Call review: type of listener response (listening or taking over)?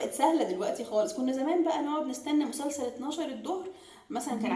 taking over